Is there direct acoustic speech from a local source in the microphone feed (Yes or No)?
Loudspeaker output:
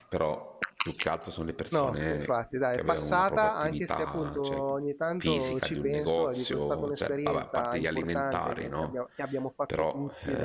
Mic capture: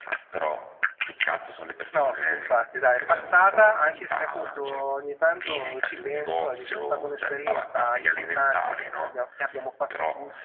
No